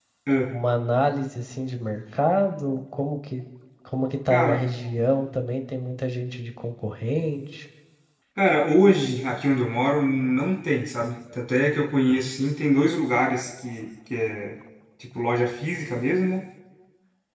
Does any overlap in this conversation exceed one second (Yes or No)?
No